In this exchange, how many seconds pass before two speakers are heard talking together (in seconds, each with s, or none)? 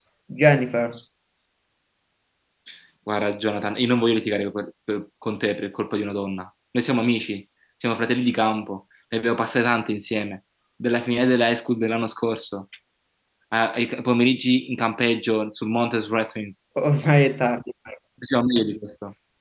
none